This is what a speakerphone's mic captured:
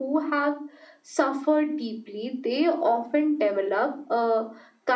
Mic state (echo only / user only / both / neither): echo only